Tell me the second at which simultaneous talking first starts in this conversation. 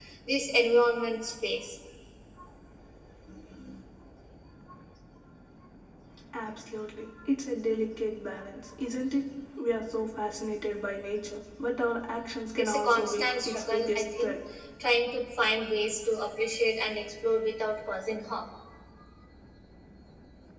12.6 s

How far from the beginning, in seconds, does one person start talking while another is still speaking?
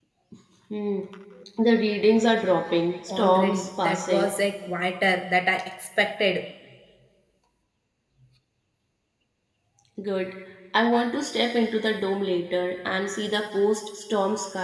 3.1 s

